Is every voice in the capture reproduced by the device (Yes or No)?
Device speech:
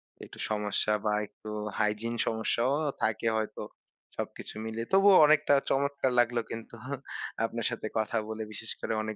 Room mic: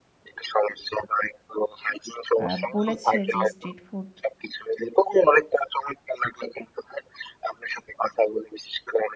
No